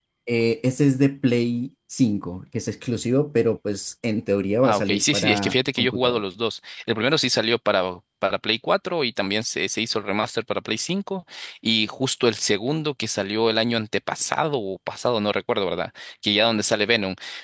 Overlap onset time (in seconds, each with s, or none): 4.6 s